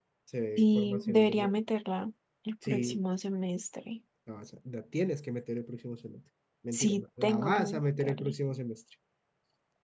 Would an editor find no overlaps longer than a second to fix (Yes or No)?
No